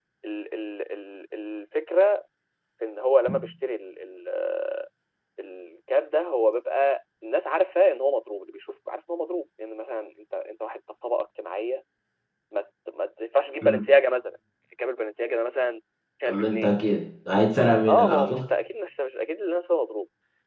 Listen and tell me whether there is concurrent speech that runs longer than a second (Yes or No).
No